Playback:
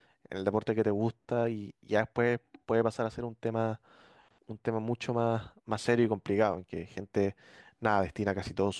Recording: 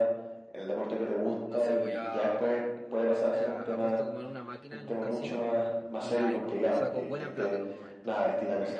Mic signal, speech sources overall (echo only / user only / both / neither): both